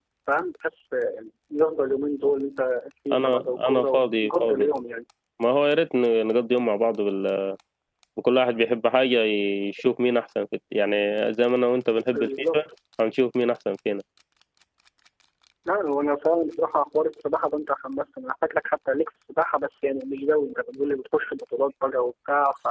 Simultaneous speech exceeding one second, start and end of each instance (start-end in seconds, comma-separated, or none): 3.1-4.7